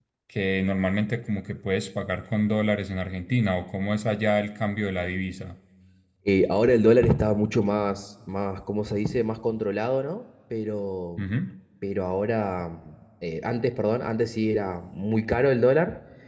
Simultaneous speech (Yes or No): No